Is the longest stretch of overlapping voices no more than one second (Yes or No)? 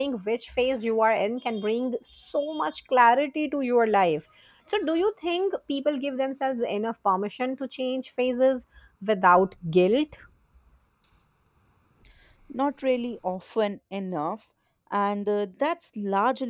Yes